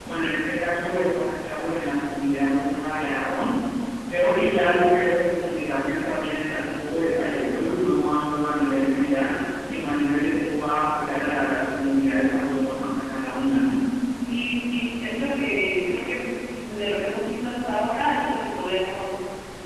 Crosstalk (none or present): none